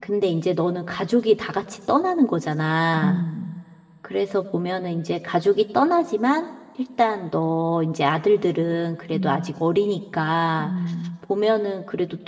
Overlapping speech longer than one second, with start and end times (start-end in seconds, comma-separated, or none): none